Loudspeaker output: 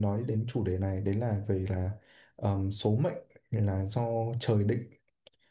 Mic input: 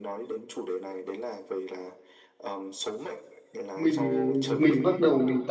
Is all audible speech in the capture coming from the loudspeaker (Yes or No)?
No